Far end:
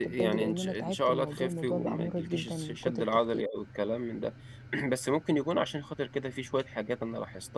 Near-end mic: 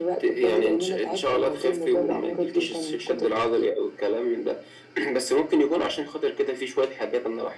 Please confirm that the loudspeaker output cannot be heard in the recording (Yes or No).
No